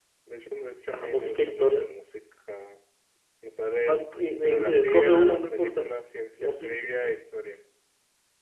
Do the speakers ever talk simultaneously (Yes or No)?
Yes